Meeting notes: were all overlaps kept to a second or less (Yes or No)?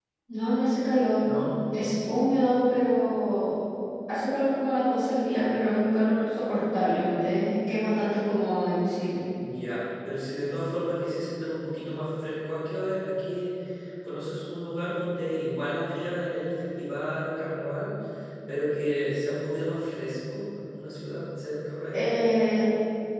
Yes